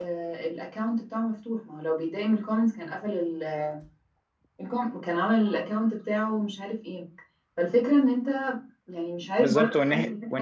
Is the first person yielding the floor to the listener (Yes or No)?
Yes